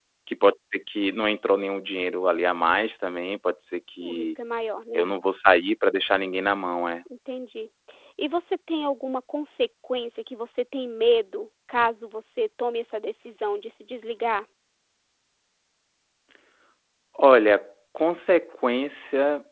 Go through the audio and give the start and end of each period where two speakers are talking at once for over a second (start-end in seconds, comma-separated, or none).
none